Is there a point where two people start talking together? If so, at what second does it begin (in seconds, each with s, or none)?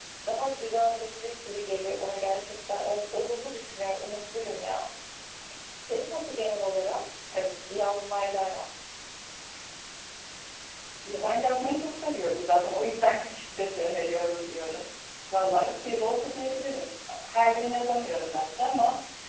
none